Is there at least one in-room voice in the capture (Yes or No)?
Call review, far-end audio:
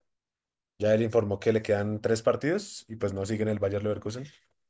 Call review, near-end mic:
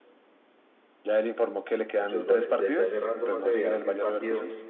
Yes